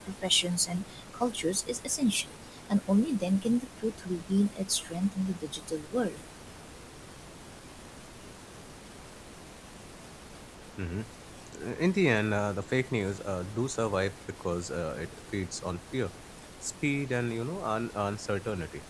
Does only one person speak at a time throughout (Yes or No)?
Yes